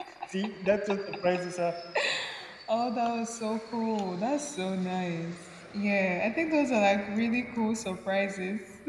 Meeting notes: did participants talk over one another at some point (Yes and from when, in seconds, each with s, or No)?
No